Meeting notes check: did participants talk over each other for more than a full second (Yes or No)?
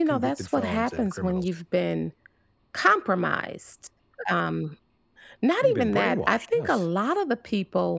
Yes